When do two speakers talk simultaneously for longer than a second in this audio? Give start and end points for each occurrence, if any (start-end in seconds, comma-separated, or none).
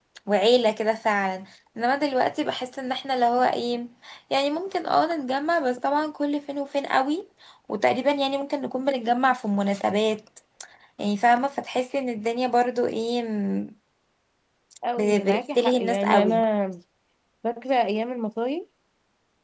15.0-16.4